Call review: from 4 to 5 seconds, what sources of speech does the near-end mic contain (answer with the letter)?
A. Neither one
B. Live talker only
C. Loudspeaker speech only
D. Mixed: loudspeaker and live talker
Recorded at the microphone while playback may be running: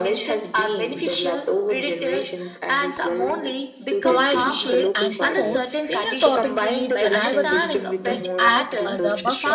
D